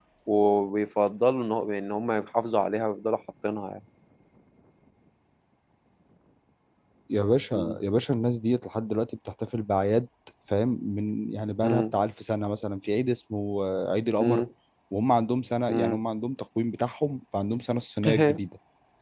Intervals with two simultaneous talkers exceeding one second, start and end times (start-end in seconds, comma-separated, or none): none